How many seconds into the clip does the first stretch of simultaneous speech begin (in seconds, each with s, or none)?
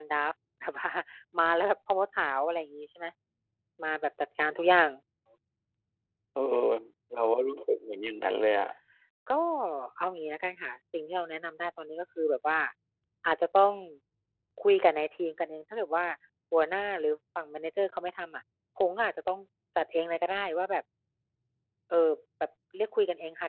none